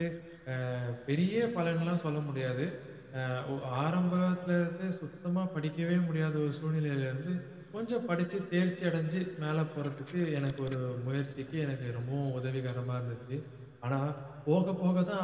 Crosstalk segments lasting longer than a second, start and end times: none

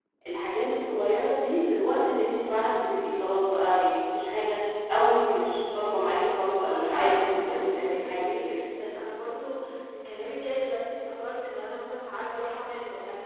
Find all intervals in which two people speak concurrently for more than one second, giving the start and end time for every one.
6.0-8.6

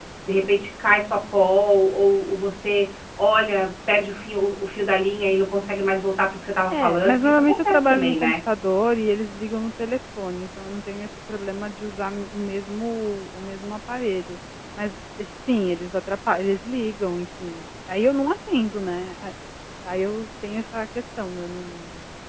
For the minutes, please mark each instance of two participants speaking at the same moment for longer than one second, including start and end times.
6.7-8.3

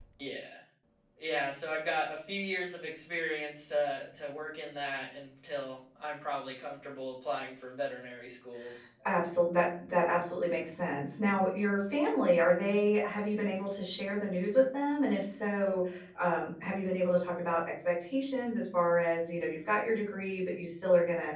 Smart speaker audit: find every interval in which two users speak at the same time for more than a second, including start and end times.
none

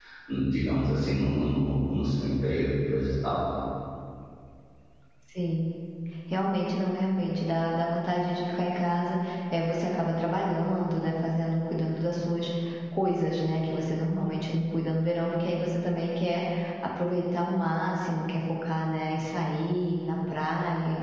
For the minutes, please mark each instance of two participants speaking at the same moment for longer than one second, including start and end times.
none

